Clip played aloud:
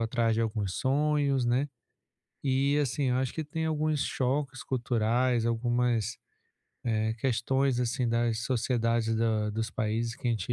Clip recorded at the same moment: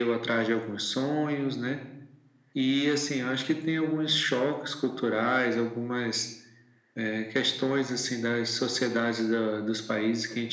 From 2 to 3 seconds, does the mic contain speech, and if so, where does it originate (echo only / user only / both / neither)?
echo only